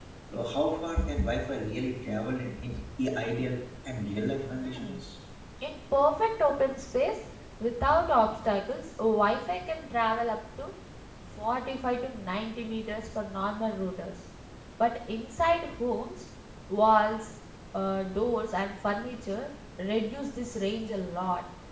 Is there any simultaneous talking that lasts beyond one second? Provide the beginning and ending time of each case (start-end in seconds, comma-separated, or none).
none